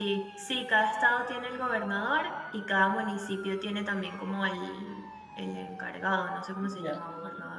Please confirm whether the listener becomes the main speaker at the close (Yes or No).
Yes